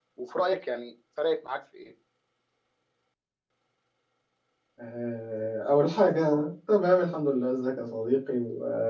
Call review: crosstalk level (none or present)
none